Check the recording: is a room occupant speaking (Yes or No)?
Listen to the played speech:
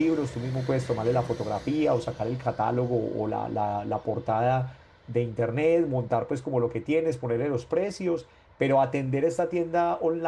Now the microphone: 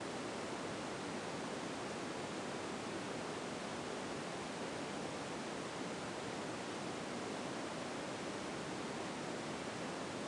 No